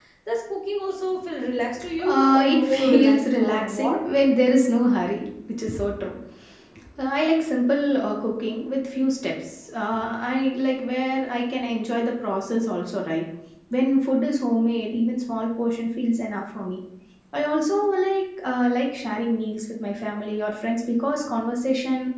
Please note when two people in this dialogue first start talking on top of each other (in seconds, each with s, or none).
2.1 s